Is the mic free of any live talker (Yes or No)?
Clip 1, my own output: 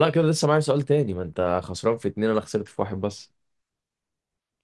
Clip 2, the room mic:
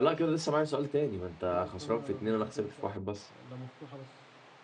No